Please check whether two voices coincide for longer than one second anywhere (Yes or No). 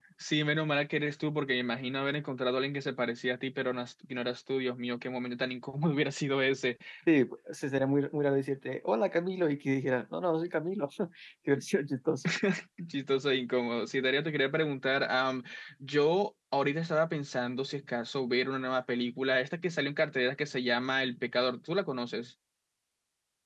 No